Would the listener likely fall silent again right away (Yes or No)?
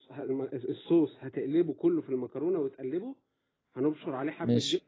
Yes